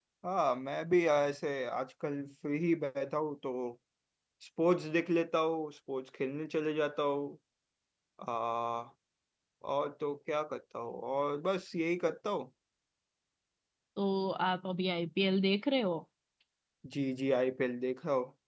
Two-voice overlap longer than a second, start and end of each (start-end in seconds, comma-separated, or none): none